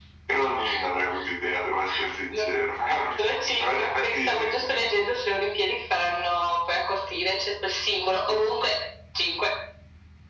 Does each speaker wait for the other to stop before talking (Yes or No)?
No